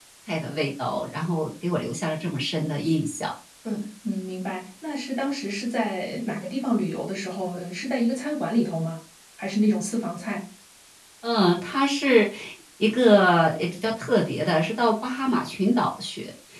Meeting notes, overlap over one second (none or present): none